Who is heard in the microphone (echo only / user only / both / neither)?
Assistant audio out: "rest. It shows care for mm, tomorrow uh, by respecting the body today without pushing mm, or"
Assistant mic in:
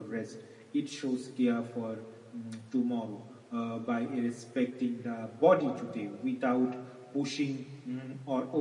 echo only